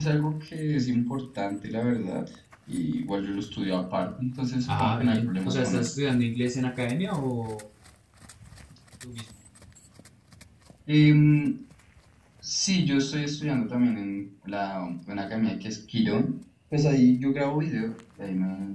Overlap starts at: 4.6 s

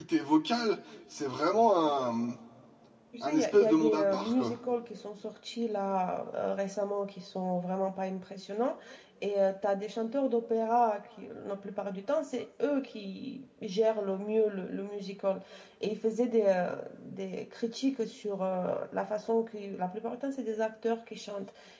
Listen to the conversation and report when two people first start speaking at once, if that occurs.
3.2 s

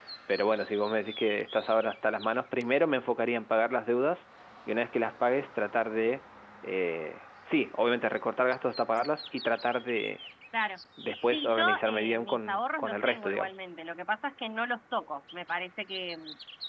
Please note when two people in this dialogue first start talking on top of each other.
11.3 s

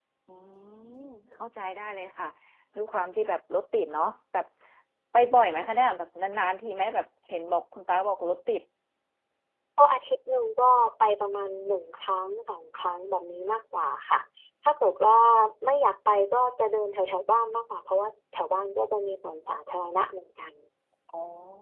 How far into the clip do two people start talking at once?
none

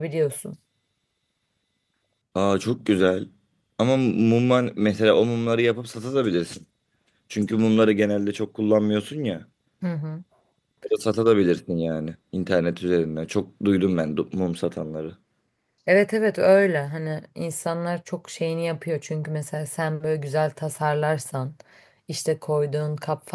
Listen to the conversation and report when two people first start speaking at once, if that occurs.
none

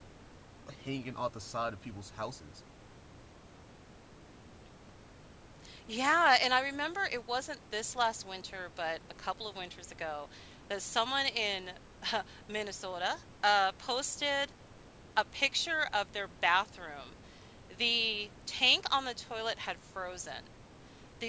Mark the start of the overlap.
none

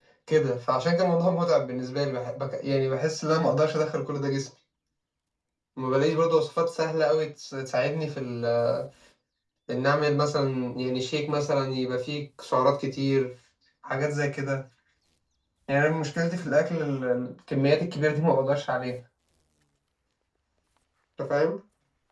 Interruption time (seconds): none

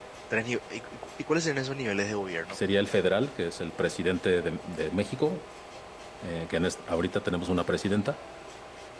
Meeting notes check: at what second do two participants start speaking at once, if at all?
none

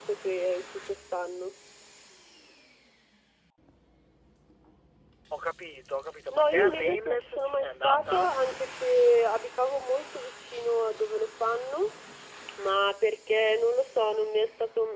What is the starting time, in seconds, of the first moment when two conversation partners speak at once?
6.3 s

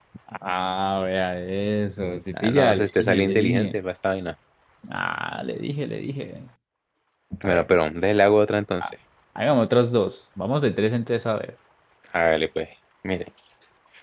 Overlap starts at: 2.3 s

